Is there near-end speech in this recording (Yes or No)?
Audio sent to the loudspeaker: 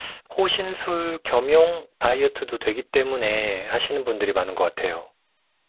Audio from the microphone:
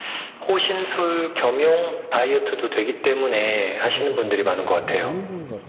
Yes